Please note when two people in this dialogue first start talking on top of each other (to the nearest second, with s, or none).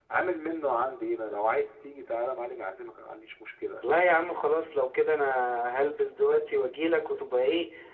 none